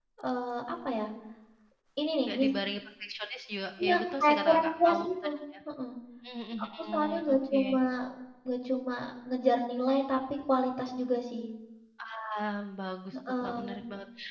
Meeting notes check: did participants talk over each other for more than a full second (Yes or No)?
Yes